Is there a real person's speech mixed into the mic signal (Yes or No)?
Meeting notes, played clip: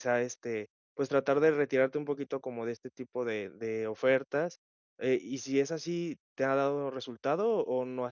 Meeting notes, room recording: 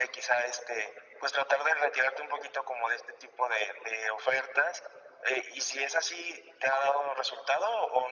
No